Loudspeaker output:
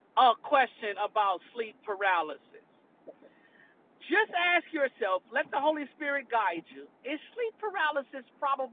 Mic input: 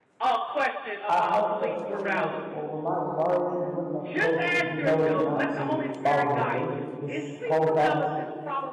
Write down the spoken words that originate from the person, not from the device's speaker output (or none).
I felt that feeling like, well, Ramaya, why are you even looking at the post? You know not to follow her page. Just scroll past it.